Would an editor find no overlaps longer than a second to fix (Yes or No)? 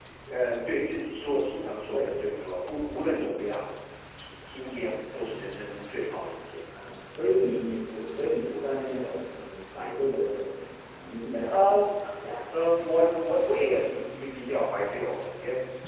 Yes